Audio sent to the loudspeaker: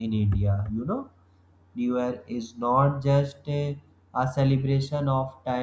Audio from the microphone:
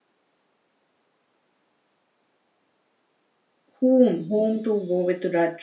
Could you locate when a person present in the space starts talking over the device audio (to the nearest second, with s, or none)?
4 s